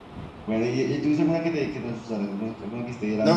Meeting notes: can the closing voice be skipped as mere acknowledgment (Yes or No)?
No